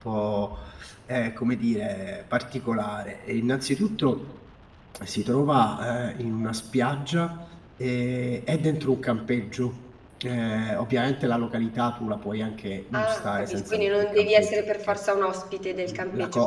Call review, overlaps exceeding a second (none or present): present